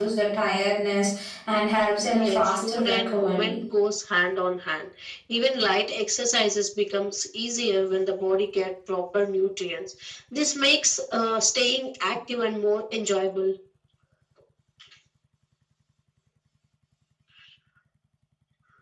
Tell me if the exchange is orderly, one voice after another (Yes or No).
No